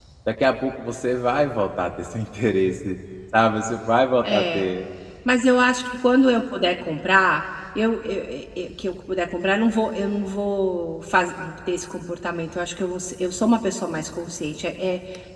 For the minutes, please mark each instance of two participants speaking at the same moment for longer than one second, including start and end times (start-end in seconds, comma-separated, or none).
none